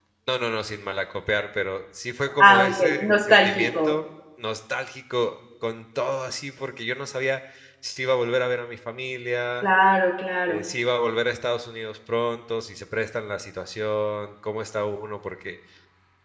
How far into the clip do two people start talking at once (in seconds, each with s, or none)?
2.4 s